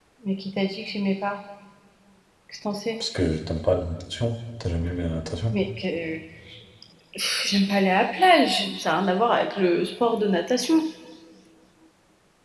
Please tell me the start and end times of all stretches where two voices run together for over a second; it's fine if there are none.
none

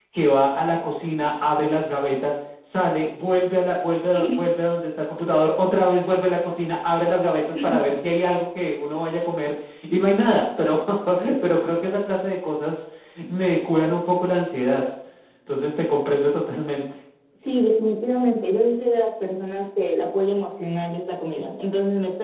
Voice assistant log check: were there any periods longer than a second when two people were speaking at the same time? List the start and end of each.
none

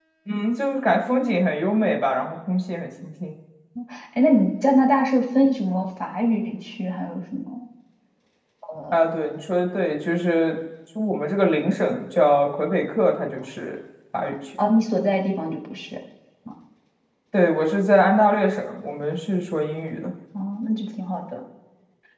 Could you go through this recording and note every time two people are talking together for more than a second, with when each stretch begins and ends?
none

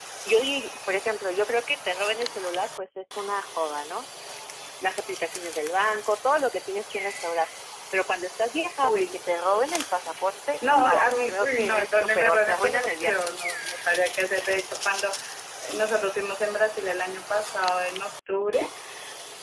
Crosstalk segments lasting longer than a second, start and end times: 10.8-13.2

